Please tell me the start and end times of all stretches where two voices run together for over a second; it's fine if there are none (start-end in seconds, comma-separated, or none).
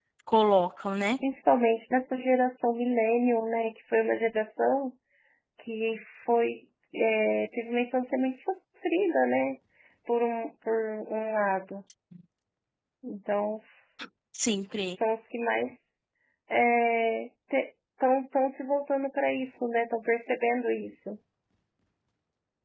none